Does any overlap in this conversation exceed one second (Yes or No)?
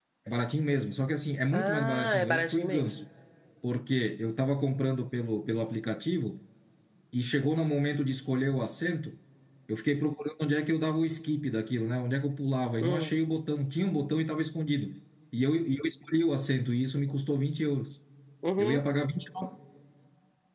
Yes